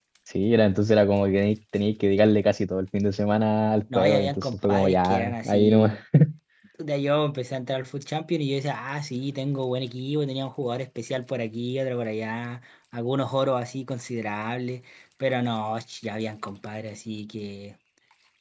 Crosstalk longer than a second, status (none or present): present